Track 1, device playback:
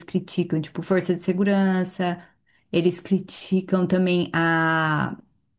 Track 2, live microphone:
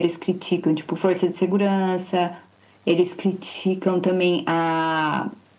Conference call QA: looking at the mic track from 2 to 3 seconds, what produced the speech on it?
echo only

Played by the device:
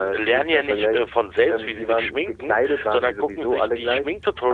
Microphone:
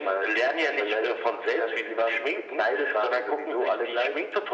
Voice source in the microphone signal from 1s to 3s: echo only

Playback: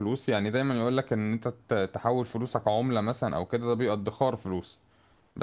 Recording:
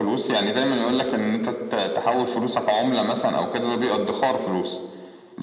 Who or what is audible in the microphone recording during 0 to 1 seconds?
echo only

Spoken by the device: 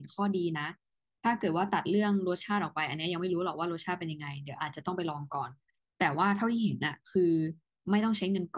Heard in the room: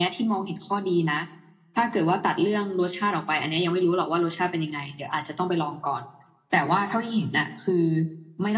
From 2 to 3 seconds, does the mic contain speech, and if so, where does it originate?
echo only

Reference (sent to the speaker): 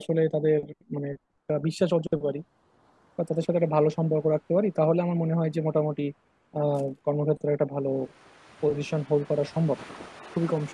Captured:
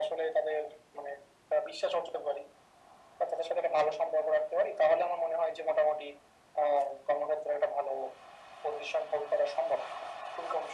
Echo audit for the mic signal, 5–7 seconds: echo only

